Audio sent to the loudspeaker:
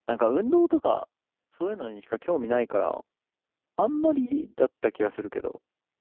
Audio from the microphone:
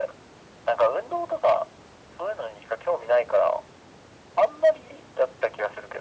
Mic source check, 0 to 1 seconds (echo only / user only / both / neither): echo only